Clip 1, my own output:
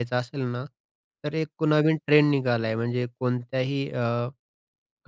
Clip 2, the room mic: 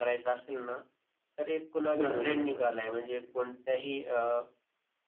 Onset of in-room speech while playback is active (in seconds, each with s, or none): 1.9 s